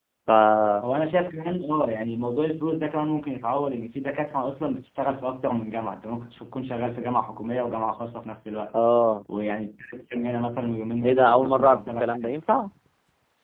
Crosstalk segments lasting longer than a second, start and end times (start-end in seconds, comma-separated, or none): 11.0-12.4